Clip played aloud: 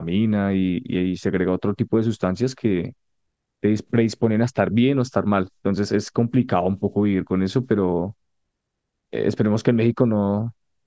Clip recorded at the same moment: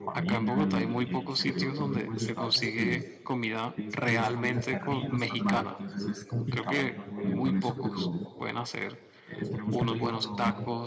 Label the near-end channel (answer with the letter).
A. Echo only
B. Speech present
B